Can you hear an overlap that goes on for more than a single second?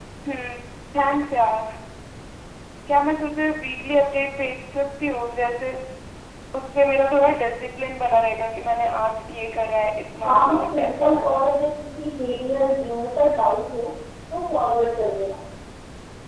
Yes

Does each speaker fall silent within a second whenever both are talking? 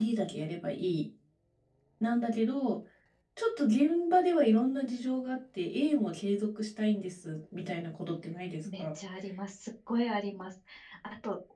Yes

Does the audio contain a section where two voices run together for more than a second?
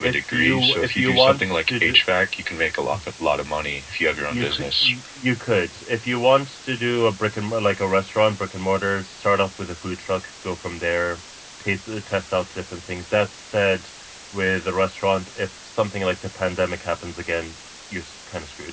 Yes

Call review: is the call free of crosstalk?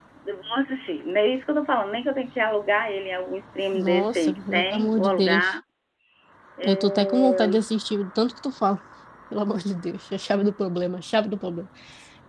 No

